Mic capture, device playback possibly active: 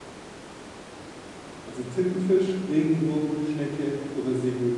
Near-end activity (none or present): present